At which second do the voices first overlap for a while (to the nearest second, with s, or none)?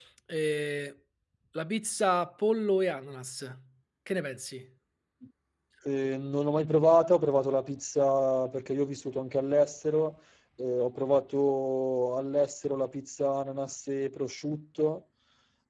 none